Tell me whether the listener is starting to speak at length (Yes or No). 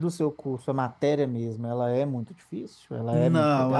Yes